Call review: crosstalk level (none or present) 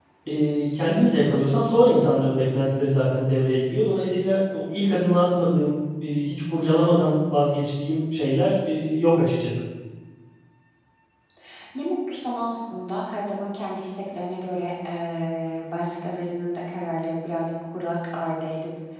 none